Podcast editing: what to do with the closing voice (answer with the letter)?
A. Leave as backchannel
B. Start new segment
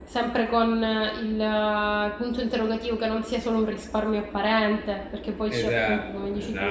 B